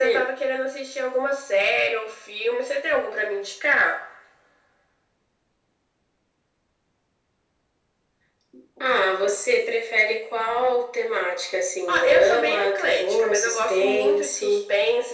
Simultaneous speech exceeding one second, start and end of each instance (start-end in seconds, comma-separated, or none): 11.9-14.6